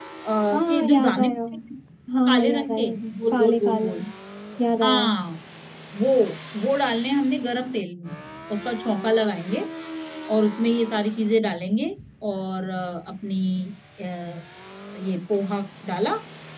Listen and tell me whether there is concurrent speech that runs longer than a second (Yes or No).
Yes